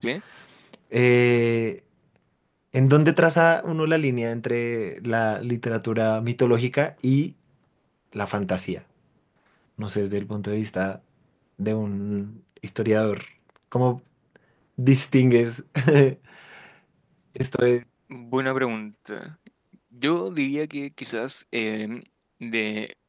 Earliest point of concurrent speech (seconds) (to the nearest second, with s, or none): none